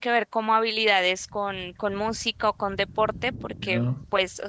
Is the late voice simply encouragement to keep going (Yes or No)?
Yes